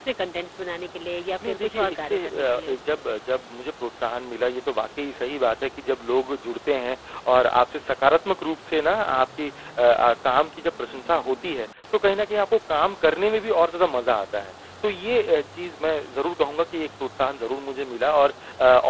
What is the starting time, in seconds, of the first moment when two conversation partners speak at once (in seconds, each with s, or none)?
1.4 s